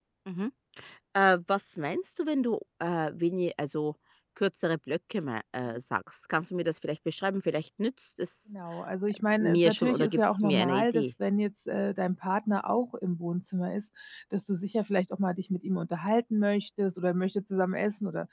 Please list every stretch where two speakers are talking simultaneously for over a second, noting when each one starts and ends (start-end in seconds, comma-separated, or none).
9.3-11.1